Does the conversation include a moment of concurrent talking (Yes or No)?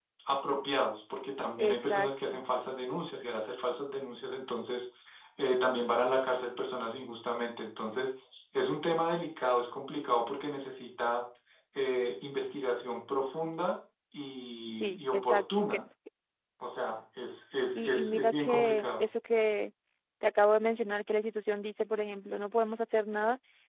Yes